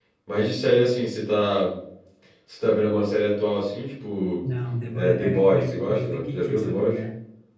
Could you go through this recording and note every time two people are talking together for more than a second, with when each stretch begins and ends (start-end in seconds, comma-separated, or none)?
4.9-6.9